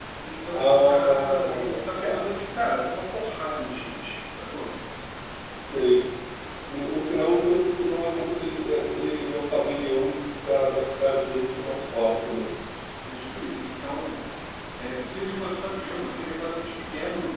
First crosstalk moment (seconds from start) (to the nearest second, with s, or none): 1 s